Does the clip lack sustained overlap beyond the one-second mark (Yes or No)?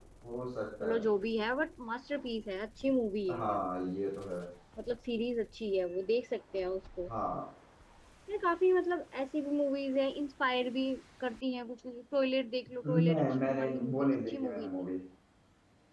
No